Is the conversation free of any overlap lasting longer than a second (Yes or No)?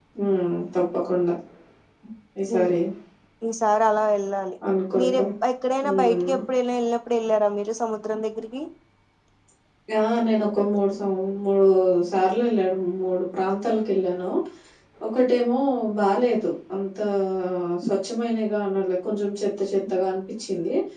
Yes